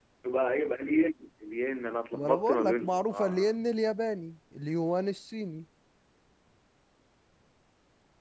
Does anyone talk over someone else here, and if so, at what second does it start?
2 s

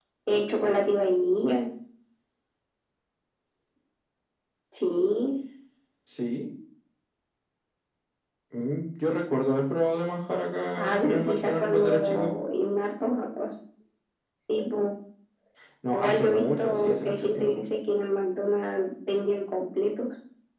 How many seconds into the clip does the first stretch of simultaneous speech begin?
11 s

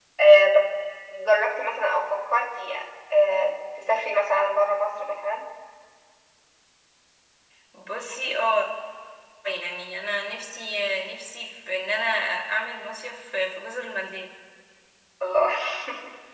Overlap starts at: none

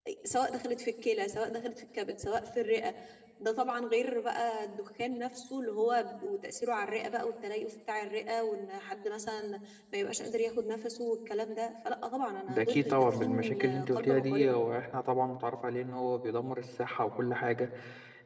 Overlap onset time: 12 s

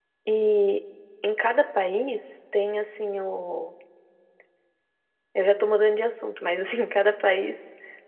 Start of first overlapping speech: none

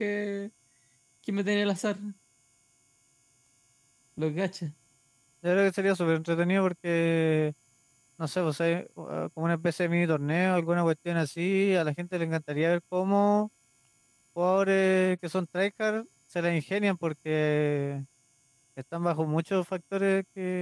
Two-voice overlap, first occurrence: none

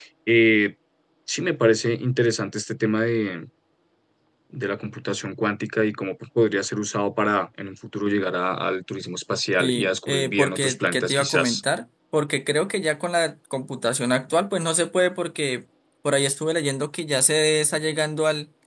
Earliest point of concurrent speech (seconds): 10 s

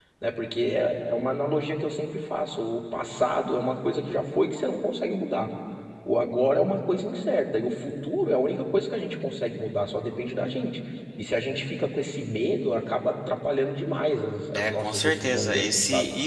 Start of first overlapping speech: 15 s

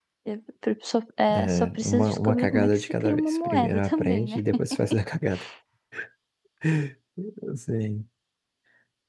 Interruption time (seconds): 1 s

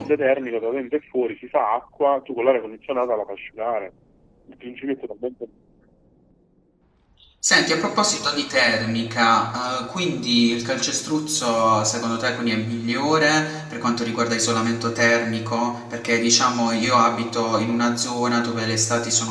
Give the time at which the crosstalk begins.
none

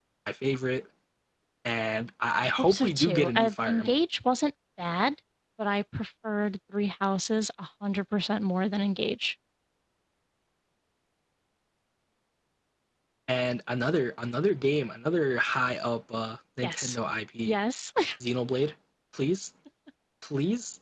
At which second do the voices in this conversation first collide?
2 s

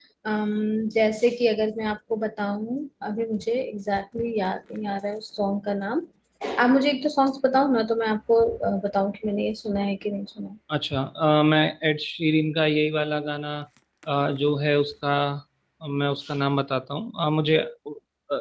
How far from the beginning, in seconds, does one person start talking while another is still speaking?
none

